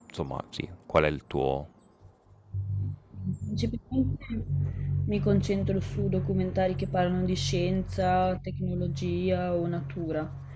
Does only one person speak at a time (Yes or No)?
Yes